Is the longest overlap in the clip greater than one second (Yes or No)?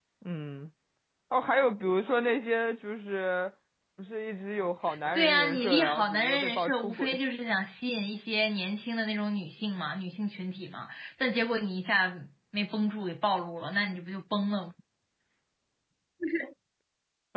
Yes